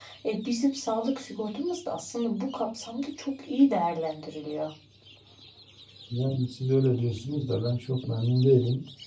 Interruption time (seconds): none

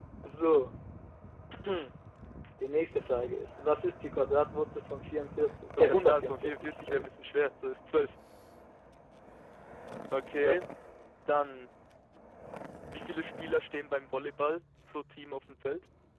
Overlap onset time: 5.8 s

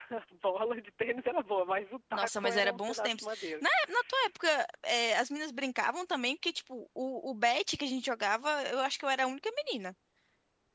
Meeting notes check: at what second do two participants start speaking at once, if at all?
2.1 s

